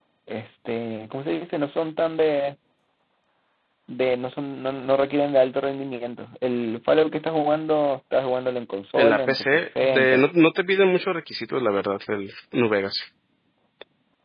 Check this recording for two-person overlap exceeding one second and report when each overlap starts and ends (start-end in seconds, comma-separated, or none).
9.0-10.2